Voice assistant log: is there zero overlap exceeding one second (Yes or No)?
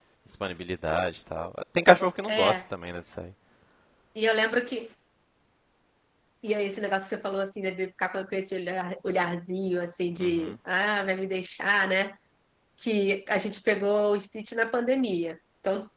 Yes